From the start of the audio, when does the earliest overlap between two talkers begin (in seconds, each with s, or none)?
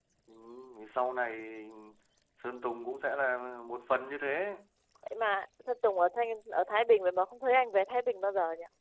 none